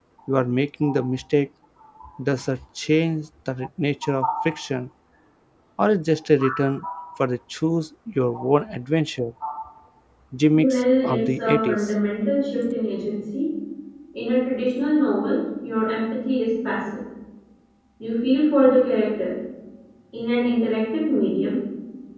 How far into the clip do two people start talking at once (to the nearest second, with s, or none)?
11 s